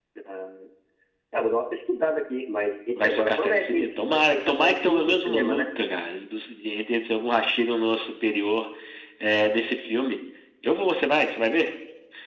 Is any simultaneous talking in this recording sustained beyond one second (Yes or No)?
Yes